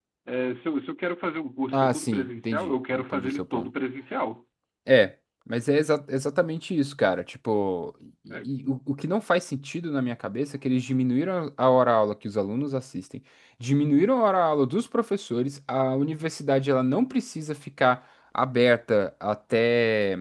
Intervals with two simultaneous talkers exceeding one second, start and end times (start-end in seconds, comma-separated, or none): 1.7-3.7